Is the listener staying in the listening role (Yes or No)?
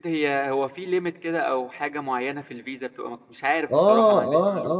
No